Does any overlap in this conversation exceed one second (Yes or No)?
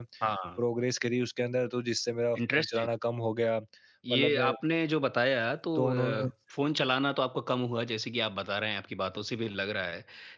No